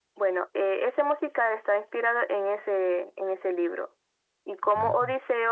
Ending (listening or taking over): listening